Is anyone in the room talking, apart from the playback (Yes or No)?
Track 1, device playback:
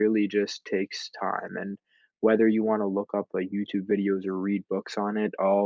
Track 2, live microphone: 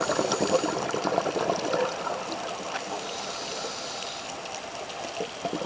No